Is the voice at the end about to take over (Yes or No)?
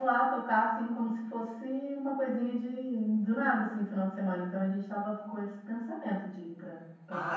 Yes